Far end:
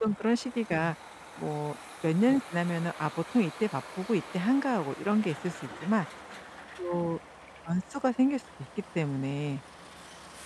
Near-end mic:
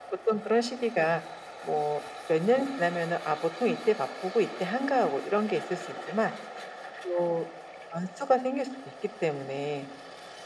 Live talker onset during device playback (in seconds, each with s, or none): none